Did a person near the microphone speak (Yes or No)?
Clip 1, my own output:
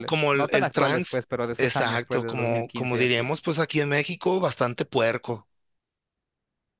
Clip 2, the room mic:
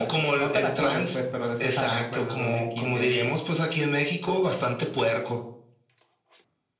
No